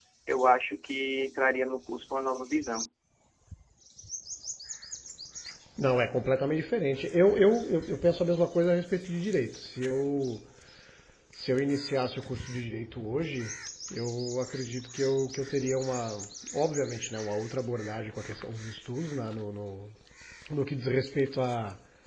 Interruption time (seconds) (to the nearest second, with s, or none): none